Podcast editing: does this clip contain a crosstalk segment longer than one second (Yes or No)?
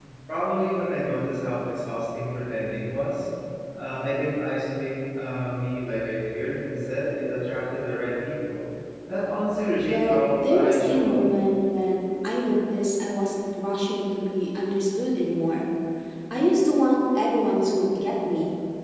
Yes